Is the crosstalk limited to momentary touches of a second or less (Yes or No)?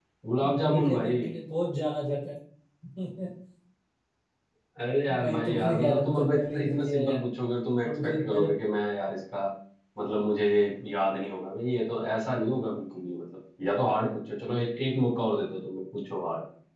No